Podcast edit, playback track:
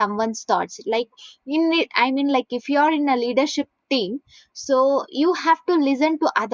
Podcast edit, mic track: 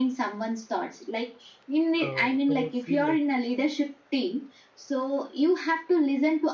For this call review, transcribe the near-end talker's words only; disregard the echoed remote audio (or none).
Uh, when you feel like